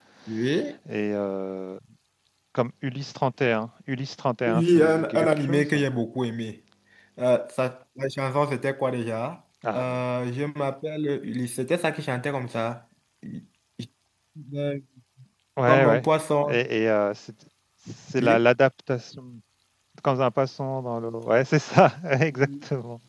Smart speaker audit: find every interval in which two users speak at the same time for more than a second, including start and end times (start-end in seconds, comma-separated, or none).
4.5-5.8